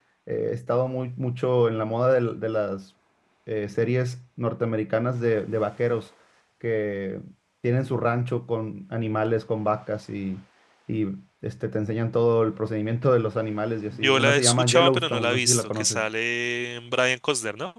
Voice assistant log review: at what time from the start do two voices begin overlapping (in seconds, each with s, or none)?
13.9 s